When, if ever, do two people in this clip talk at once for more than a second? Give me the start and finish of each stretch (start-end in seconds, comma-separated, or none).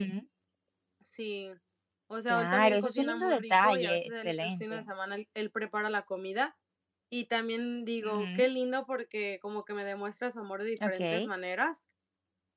2.3-4.8